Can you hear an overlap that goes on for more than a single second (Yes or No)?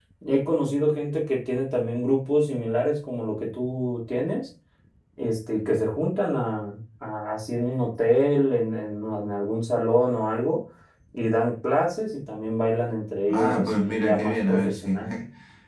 Yes